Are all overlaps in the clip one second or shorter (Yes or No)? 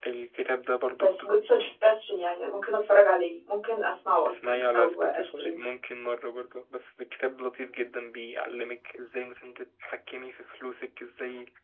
No